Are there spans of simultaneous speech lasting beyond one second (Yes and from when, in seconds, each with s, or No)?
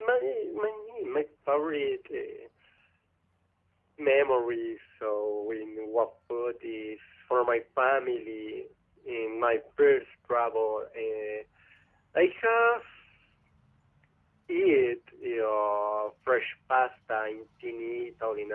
No